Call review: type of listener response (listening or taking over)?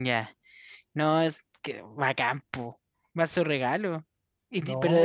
listening